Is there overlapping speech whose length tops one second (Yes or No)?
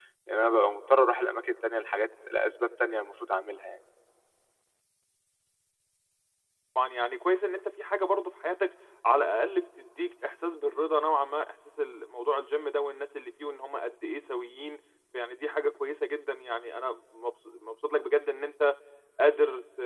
No